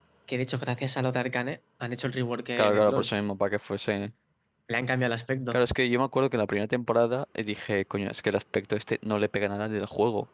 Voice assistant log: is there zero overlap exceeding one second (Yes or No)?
Yes